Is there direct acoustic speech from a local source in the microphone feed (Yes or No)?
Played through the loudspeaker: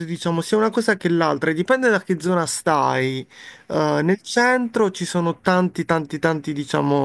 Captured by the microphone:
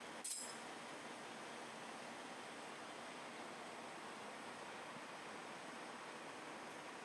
No